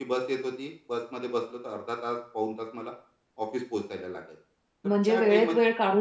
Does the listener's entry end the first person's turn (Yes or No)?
Yes